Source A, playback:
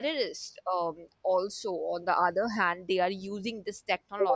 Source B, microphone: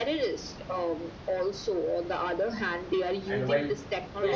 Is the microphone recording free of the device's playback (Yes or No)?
No